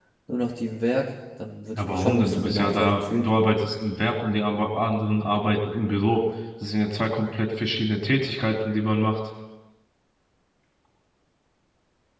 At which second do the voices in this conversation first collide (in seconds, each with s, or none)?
1.8 s